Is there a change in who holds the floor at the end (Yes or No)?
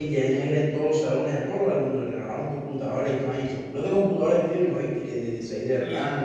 No